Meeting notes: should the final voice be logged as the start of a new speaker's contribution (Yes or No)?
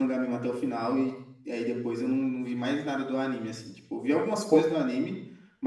No